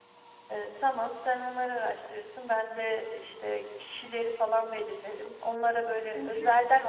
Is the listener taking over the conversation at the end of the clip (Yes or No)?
No